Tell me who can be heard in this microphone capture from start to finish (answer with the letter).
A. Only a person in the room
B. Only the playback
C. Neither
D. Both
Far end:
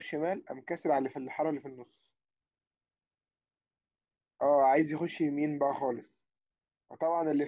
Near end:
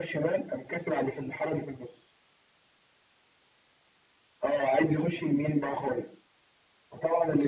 B